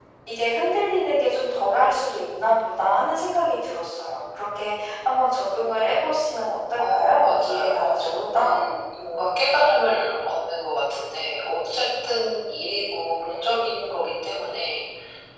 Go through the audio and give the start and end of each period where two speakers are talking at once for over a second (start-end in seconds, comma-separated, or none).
6.8-8.6